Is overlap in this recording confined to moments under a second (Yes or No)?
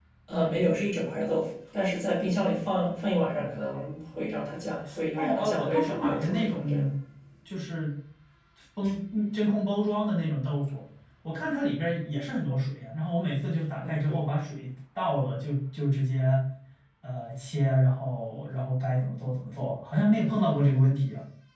No